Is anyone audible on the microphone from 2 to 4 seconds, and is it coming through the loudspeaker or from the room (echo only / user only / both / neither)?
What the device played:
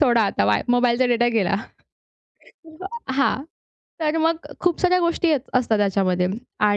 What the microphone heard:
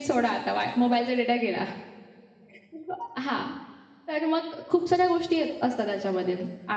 echo only